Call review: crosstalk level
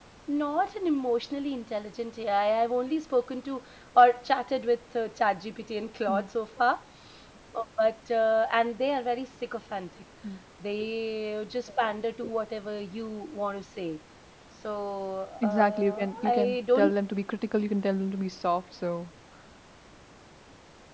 present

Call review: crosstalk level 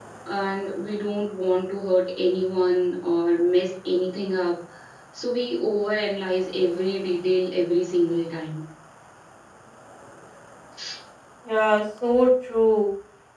none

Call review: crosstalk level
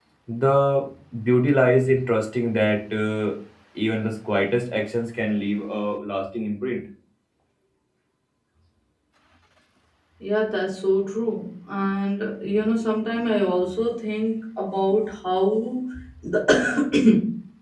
none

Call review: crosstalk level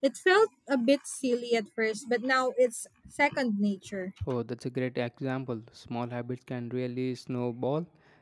none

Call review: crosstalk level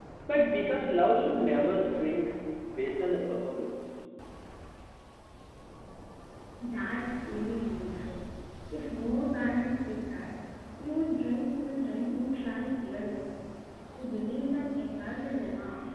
none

